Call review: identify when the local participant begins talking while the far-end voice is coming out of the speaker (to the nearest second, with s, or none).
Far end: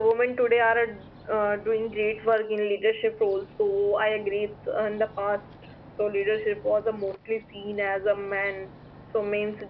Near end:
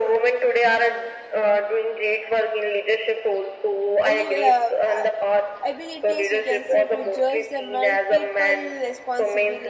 4 s